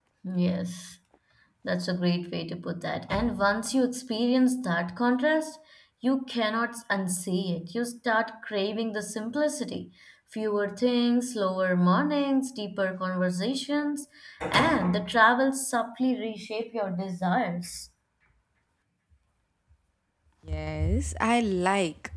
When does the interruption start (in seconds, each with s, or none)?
none